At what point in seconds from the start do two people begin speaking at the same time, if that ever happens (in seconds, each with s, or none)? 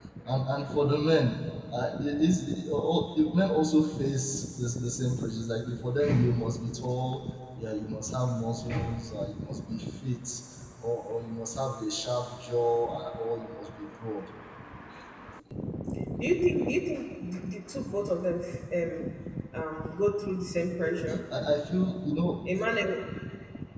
none